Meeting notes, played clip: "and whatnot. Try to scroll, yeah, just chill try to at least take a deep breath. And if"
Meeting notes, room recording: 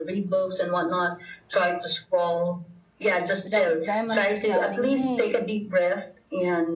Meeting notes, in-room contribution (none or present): present